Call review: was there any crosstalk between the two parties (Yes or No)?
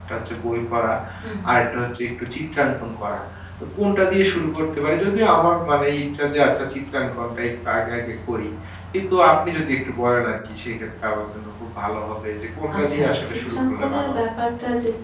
Yes